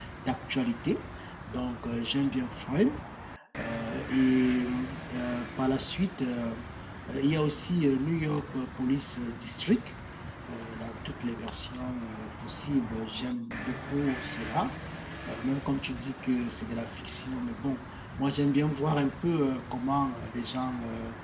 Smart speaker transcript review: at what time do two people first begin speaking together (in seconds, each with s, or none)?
none